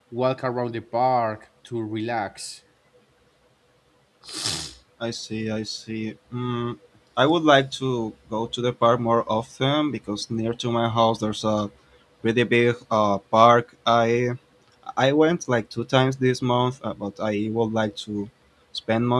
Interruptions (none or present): none